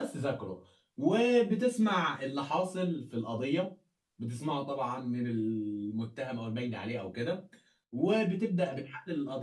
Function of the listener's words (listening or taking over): listening